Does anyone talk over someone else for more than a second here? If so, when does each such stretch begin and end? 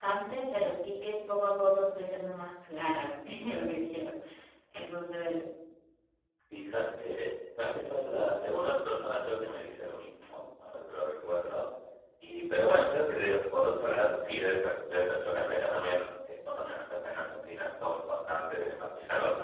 none

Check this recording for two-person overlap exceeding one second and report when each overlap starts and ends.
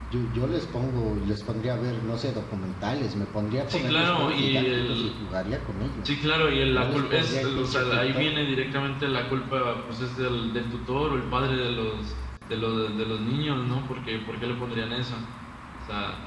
3.7-5.1, 6.7-8.3

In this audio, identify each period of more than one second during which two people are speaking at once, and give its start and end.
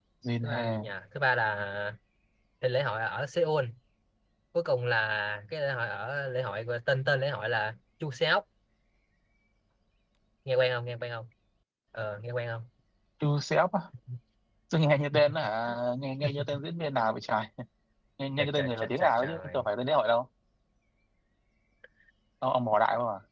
18.4-19.6

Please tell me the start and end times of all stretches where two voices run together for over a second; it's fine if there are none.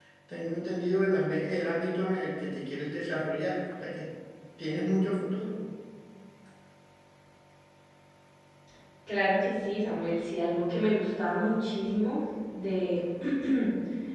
none

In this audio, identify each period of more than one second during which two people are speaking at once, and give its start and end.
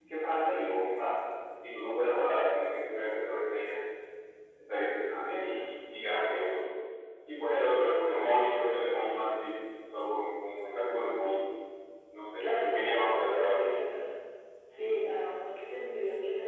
12.4-13.8

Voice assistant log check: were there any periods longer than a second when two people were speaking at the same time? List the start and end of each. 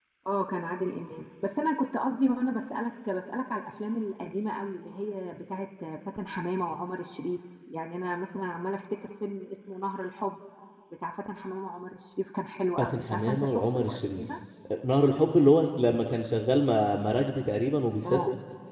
12.8-14.2

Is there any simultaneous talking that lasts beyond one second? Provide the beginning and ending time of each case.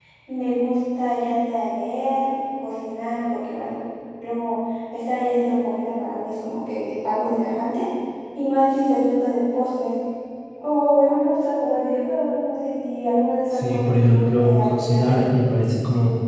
13.6-15.2

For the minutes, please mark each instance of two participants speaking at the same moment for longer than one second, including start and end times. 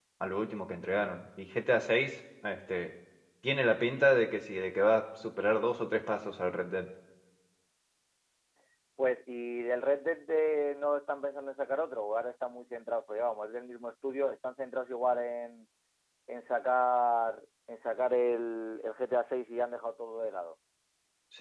none

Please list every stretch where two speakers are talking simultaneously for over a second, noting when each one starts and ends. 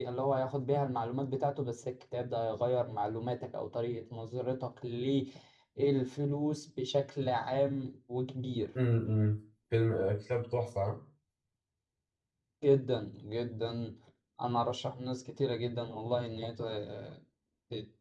none

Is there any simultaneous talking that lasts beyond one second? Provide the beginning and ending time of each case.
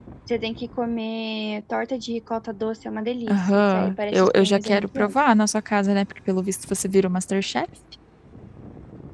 3.3-5.1

